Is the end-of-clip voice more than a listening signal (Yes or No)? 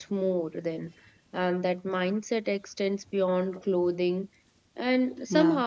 No